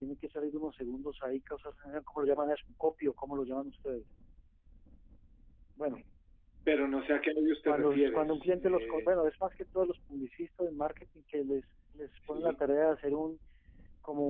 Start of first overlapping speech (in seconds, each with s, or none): 7.7 s